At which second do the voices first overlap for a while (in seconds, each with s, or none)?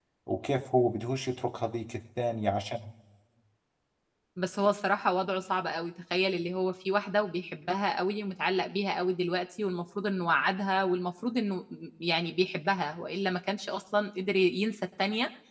none